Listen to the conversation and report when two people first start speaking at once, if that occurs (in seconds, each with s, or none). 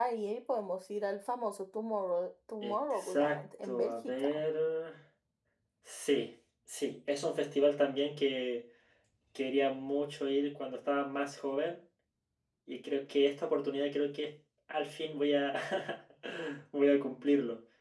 2.6 s